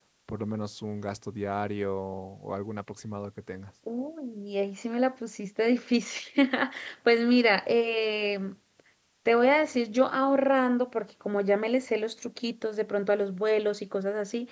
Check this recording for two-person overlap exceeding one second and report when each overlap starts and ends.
none

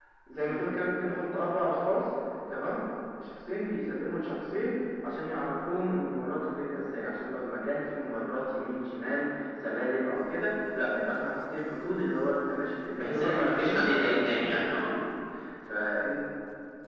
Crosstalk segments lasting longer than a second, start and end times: 12.9-14.9

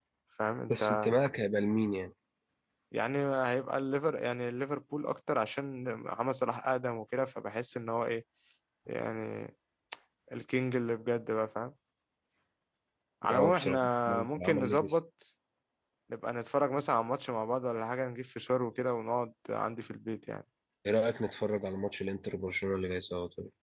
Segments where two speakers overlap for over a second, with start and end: 13.3-15.0

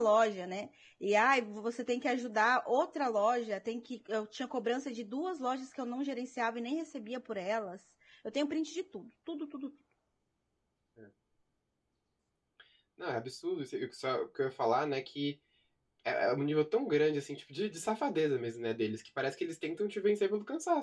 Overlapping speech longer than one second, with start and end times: none

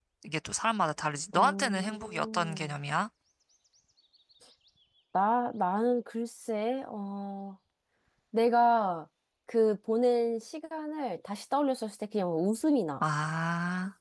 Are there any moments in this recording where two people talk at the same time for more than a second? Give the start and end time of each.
1.3-2.7

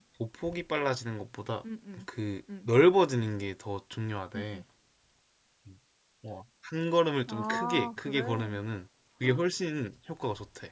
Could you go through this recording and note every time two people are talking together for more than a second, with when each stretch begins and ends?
7.3-8.6

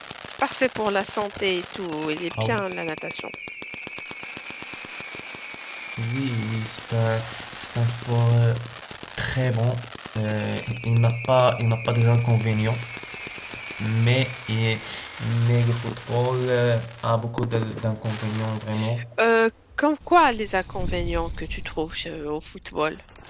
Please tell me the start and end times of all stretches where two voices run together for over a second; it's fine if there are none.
none

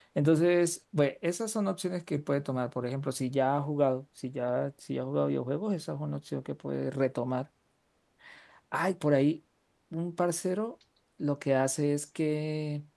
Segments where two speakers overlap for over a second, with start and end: none

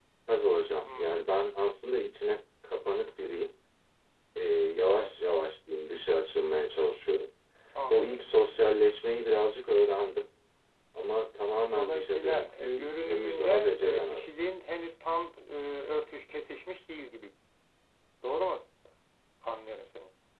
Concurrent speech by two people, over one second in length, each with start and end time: 11.8-14.2

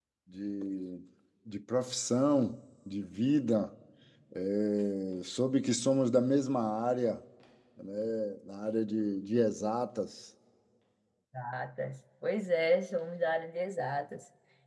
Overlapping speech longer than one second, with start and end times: none

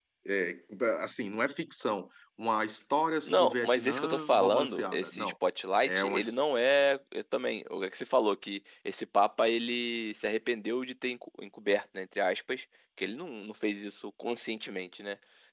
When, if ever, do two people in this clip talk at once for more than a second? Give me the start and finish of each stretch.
3.3-5.3

